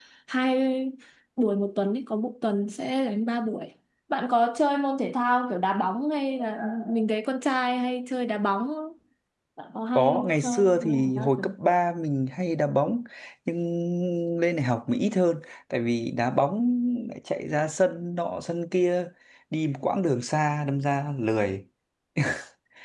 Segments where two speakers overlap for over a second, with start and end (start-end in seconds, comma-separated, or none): 10.0-11.4